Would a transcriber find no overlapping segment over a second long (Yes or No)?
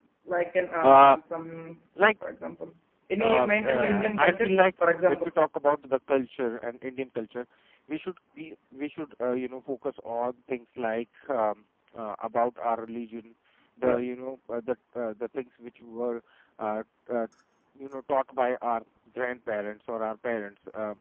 No